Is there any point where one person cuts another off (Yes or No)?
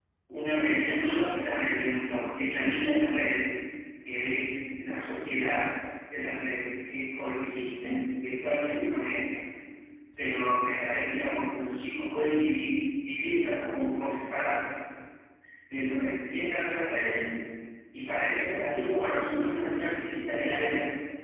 No